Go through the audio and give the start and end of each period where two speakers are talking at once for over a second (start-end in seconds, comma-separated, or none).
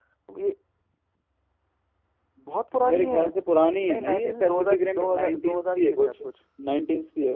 3.8-6.1